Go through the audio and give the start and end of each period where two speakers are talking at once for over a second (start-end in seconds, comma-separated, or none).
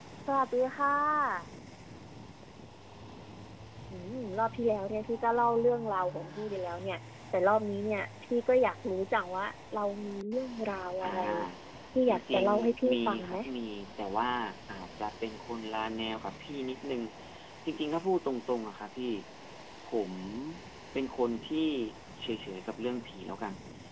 12.1-13.4